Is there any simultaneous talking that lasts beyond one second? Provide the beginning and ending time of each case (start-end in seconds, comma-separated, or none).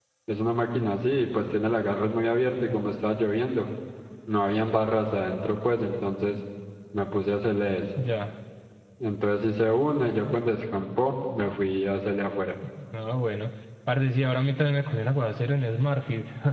none